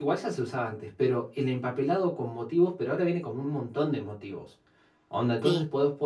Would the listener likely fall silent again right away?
Yes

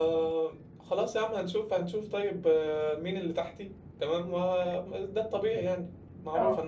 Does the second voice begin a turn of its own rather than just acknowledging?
No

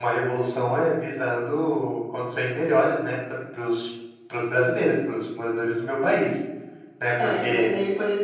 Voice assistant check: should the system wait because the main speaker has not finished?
No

